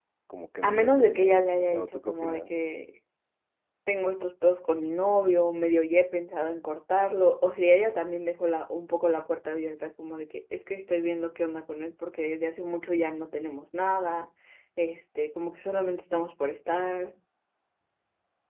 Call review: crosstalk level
present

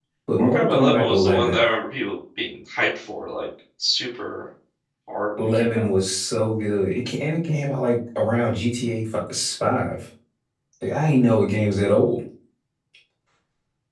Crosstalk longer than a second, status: present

